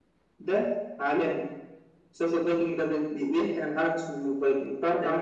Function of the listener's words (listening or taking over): taking over